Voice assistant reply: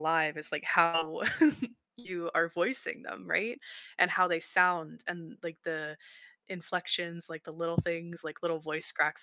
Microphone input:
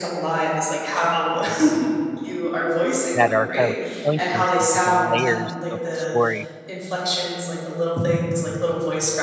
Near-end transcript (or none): that are kind of pointing to different layers of the story.